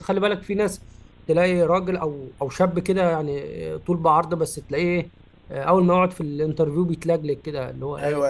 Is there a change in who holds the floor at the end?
Yes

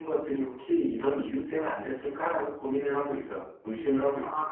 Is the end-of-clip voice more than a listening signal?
Yes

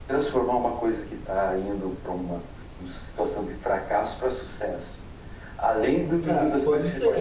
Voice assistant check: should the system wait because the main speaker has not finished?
No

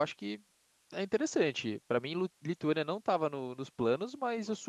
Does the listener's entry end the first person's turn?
No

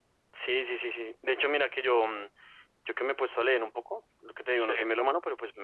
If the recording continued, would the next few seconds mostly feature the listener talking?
No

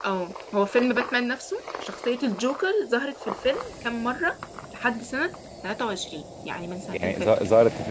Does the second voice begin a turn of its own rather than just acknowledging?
Yes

